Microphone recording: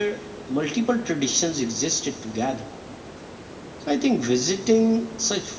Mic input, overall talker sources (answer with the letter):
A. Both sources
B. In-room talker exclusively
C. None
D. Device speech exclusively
D